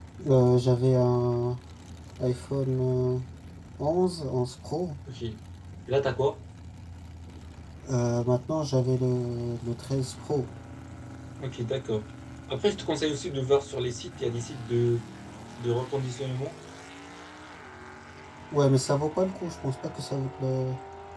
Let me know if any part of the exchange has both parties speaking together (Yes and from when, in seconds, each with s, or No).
No